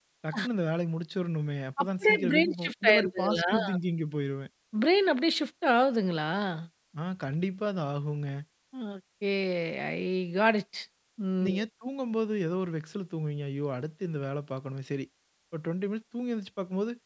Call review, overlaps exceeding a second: present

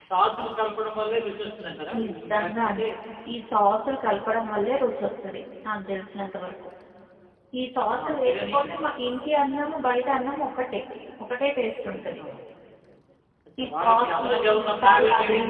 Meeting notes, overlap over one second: present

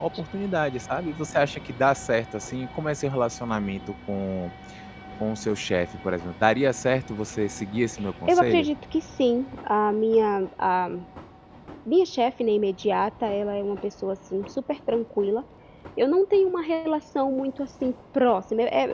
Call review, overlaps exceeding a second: none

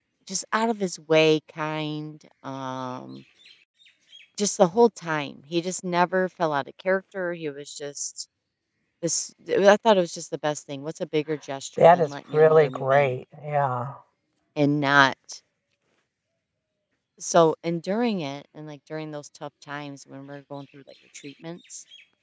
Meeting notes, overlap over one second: present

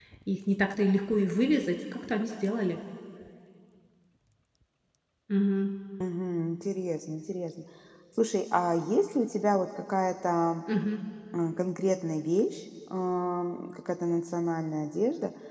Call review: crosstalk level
none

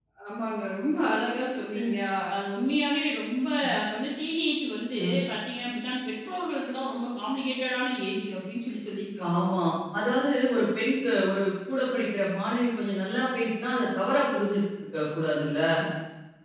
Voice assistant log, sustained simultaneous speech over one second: none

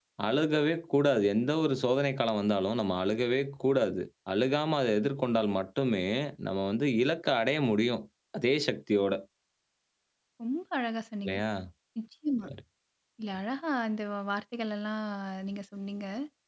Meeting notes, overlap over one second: none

